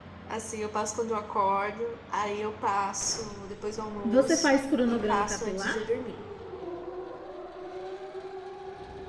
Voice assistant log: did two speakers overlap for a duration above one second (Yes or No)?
Yes